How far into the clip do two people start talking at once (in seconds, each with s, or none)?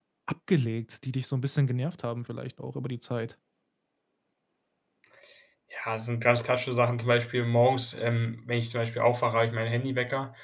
none